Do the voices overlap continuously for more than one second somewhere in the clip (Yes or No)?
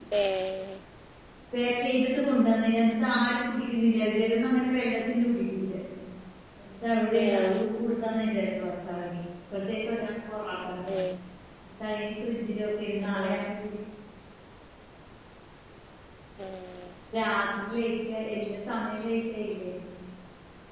No